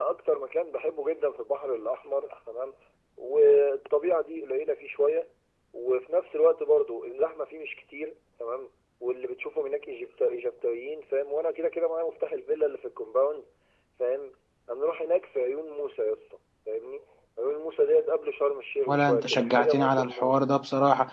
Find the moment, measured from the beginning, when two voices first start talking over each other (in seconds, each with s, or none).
18.9 s